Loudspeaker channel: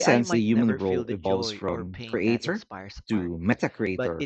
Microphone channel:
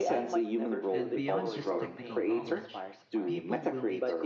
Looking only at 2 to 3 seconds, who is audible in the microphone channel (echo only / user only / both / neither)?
both